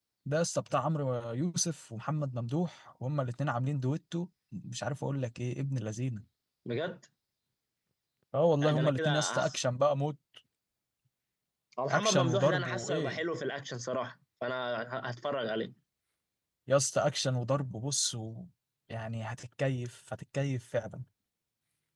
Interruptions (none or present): present